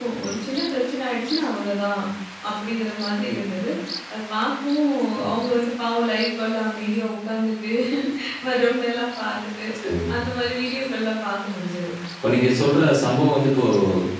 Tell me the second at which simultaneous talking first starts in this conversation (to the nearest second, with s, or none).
none